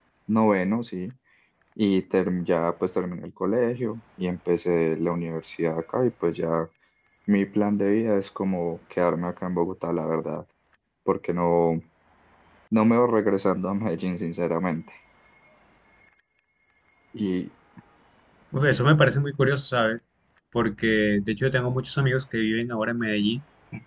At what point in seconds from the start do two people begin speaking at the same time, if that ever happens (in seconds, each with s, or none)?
none